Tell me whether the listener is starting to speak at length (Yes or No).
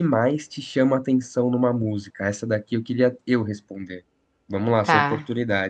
No